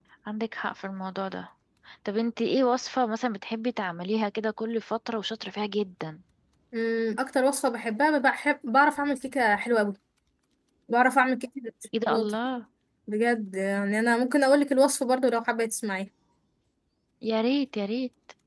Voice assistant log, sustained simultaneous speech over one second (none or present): none